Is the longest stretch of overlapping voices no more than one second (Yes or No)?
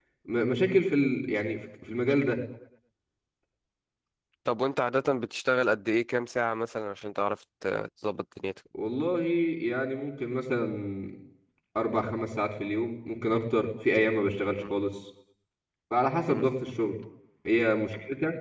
Yes